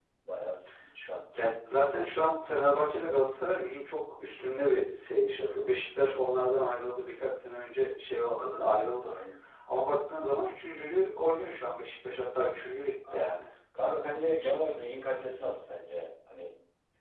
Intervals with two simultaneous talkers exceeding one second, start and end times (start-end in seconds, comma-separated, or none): none